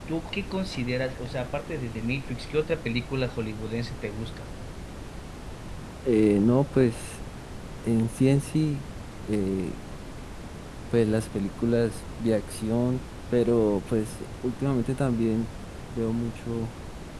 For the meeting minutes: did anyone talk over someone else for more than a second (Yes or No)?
No